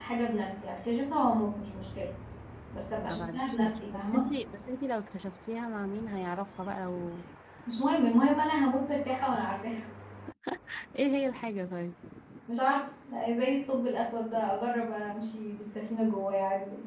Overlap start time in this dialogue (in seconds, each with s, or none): 3.0 s